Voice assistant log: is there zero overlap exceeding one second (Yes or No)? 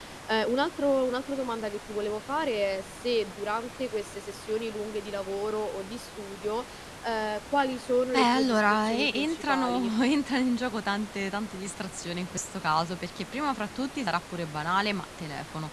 No